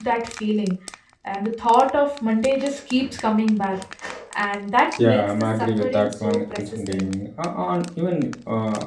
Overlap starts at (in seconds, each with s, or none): 5.0 s